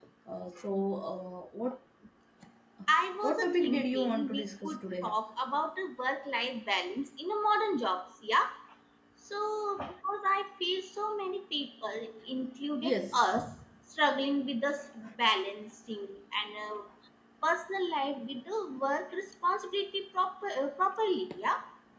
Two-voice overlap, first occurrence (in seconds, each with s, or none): 3.2 s